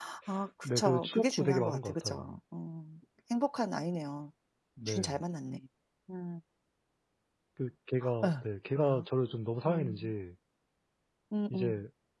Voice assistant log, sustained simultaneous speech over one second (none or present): present